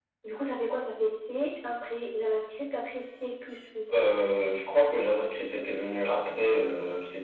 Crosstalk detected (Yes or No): No